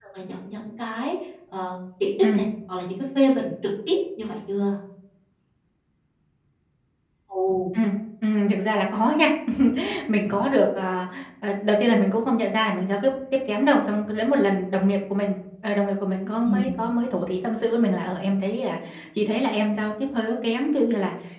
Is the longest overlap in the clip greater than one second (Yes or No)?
No